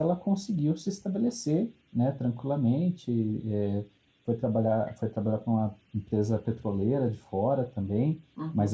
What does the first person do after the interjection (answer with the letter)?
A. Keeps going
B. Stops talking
B